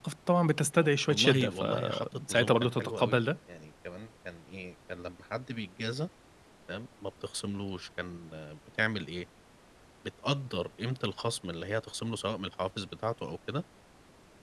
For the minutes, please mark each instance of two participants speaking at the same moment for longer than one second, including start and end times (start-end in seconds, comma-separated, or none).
0.8-3.2